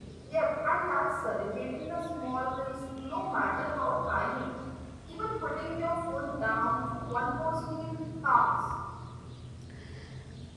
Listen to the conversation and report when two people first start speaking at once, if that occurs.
none

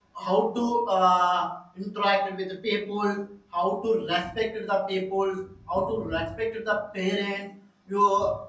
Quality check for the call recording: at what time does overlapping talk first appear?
none

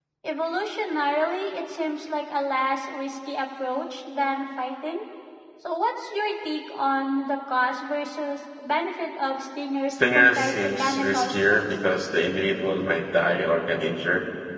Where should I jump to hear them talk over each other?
9.9 s

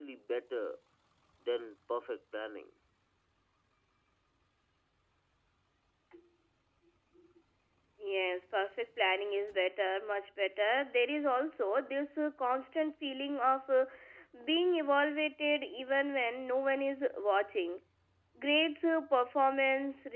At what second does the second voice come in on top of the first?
none

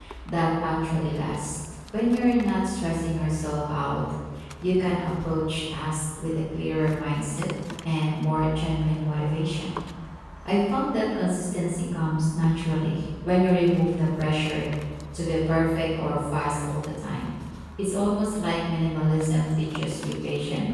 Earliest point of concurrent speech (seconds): none

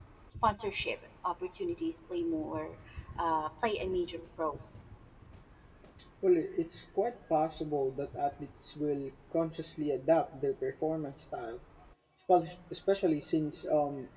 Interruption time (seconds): none

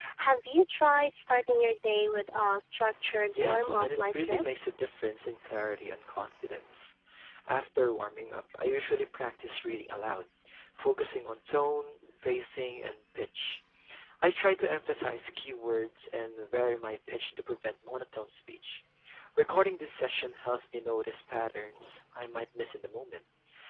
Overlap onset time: 3.4 s

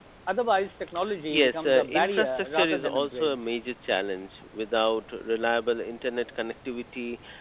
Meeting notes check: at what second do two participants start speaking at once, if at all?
1.3 s

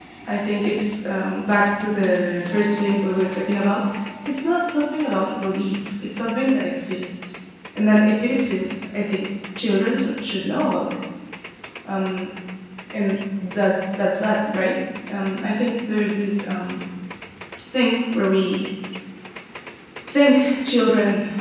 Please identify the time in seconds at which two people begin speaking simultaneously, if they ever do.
none

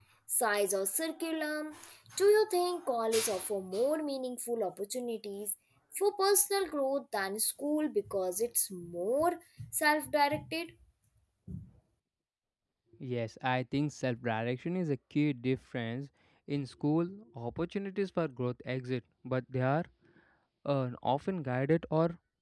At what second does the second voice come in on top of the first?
none

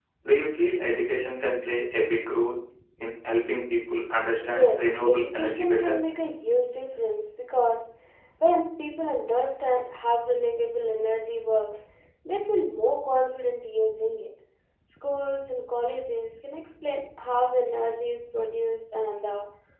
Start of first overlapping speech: 4.4 s

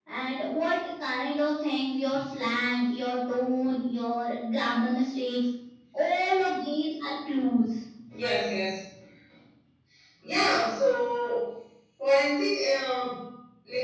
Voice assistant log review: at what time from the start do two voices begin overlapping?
none

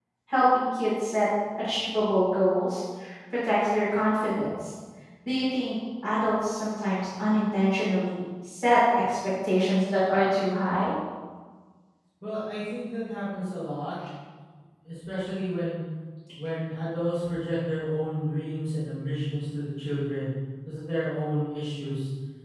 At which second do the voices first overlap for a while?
none

